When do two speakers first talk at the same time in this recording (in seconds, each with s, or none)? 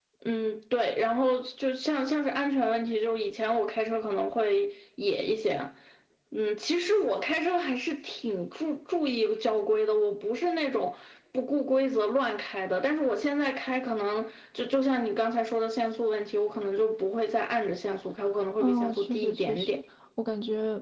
18.6 s